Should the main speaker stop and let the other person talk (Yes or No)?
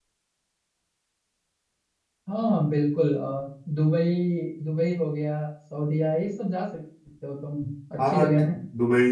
Yes